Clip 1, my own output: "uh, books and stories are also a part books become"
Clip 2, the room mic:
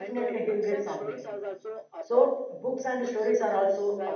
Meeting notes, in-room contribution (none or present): present